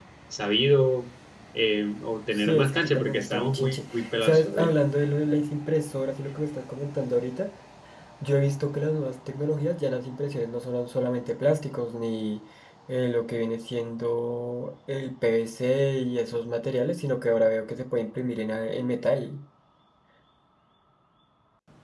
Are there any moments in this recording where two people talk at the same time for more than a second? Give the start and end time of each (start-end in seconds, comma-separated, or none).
2.3-4.7